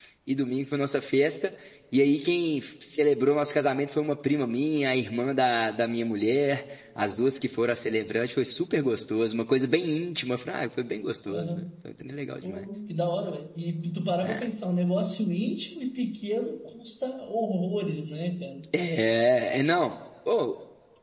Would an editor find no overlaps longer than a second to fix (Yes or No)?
Yes